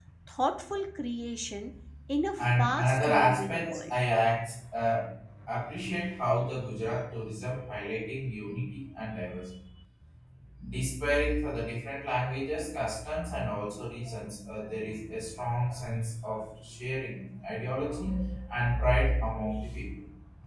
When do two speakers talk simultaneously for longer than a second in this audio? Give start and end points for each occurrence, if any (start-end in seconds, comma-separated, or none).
2.4-3.9